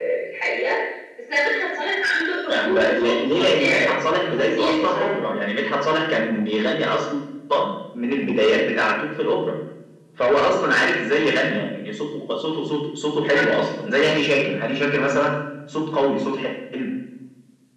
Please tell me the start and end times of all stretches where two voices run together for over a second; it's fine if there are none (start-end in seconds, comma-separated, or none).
2.5-5.1